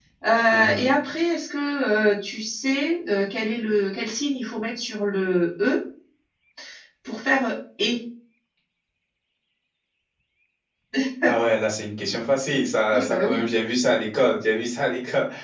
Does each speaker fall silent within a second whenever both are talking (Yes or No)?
Yes